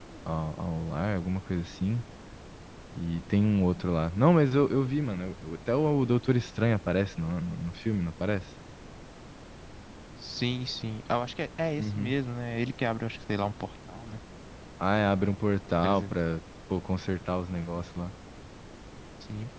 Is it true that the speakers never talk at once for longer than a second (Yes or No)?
Yes